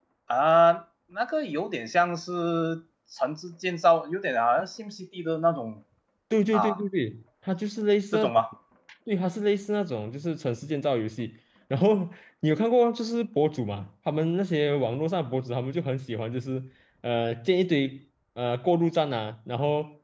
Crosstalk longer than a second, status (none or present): none